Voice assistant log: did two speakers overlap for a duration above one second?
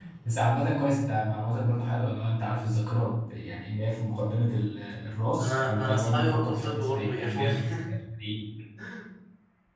Yes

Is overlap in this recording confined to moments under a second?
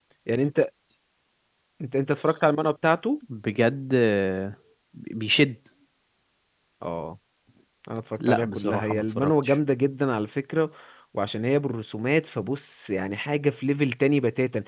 No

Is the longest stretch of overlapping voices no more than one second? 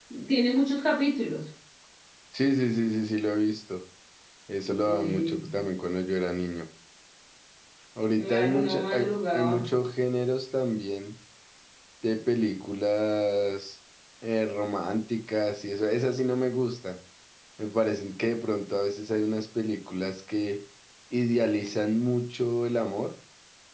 No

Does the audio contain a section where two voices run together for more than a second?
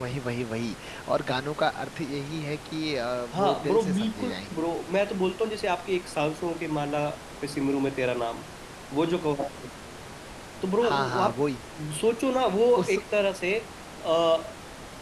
Yes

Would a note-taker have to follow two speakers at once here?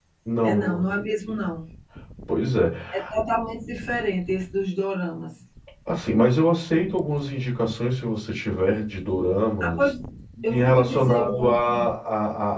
Yes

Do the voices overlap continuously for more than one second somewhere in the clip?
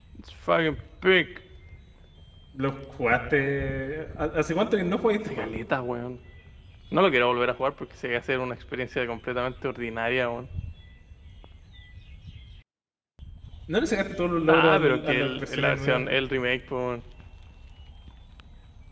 Yes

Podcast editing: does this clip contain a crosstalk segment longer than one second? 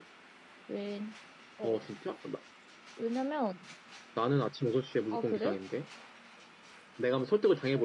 No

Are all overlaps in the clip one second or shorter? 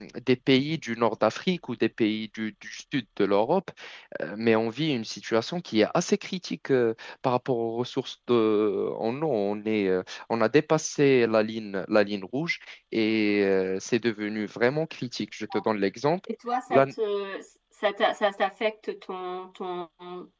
Yes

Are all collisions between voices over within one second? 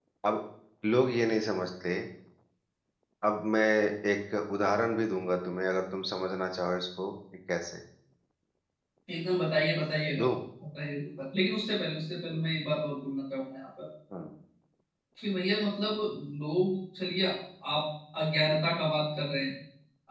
Yes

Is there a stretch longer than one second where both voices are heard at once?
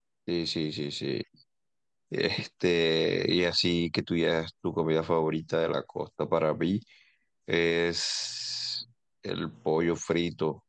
No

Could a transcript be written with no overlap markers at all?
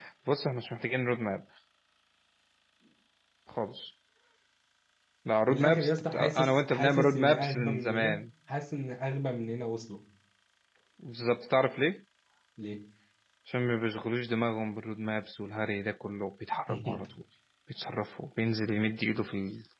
No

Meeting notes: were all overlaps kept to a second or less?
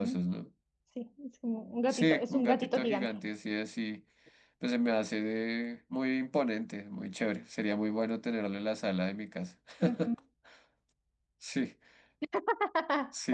No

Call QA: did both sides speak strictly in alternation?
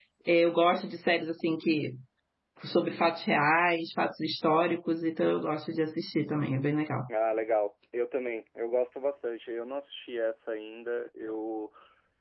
Yes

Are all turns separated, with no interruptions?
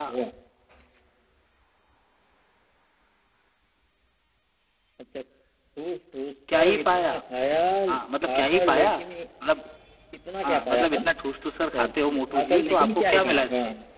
No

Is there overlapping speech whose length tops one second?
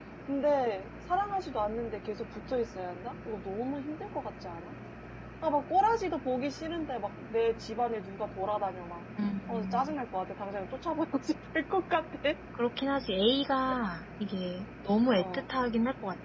No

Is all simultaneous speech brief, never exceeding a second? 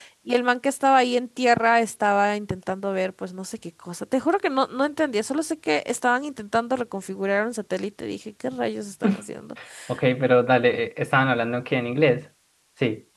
Yes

